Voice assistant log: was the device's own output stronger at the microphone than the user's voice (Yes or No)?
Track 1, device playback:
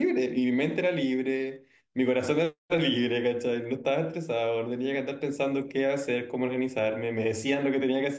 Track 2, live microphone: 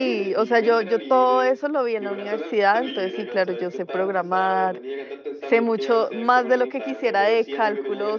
No